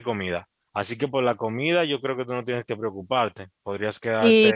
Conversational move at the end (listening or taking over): taking over